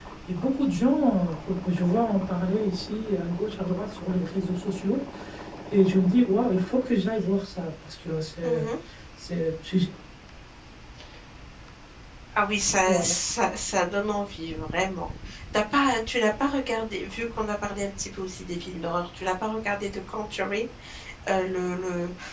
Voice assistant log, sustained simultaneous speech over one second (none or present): none